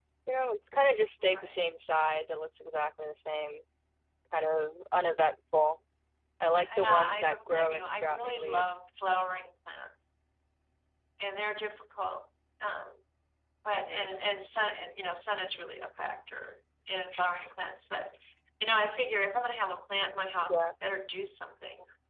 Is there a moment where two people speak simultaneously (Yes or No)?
Yes